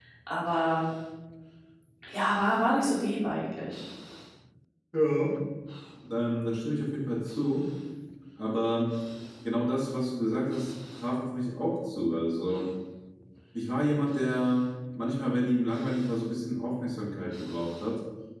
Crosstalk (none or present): none